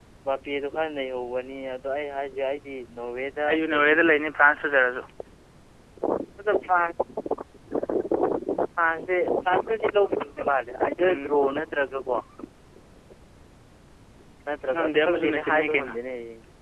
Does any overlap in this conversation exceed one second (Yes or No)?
Yes